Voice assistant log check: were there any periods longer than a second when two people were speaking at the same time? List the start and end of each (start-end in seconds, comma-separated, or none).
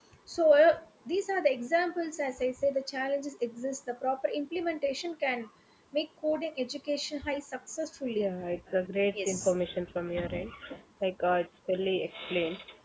none